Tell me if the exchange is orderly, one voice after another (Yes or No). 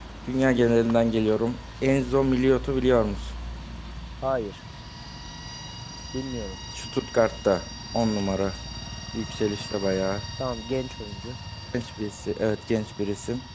Yes